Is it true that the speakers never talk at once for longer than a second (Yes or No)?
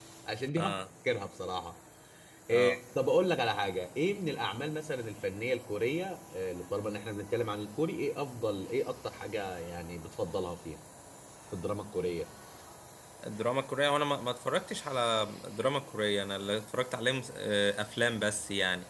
Yes